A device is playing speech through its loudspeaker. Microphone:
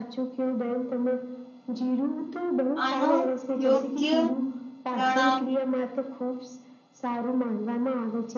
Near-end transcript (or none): આનો યોગ્ય પ્રણામ